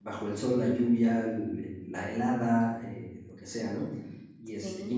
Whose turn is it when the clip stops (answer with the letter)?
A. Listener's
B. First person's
B